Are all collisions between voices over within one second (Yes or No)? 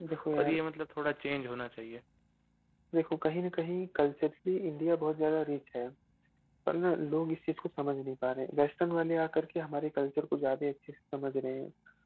Yes